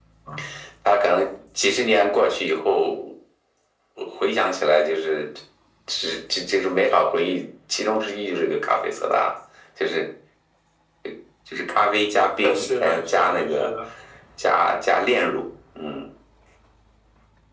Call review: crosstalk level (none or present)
present